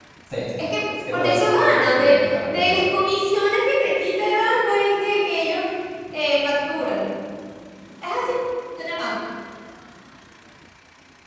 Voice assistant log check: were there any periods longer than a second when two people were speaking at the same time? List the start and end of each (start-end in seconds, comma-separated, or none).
1.1-3.0